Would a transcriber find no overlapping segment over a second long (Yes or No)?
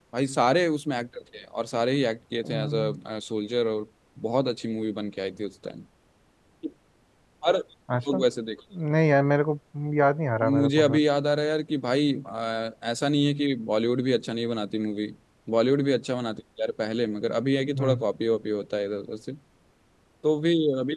Yes